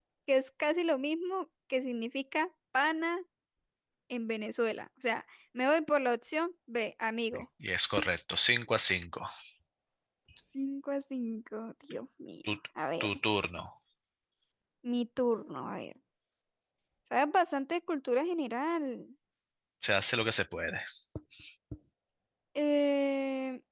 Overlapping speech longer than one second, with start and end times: none

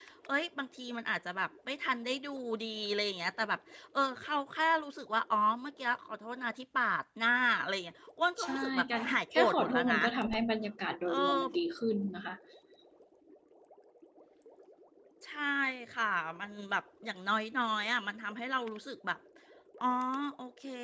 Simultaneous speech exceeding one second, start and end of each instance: 8.4-10.0

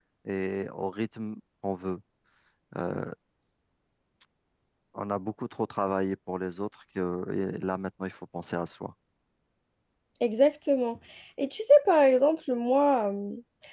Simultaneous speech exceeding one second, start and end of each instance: none

